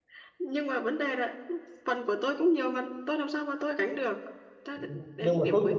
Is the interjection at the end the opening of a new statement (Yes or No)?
Yes